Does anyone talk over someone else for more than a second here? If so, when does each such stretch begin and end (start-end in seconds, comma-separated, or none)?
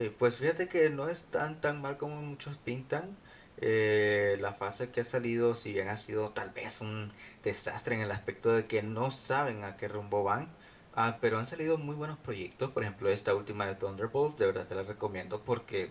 none